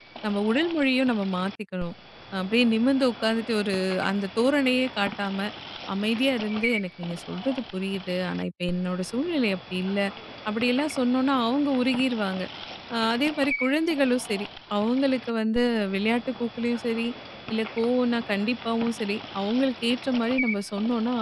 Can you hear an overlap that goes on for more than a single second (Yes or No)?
No